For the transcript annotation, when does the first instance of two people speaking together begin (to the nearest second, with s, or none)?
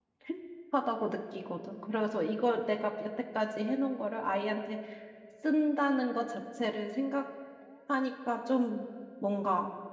none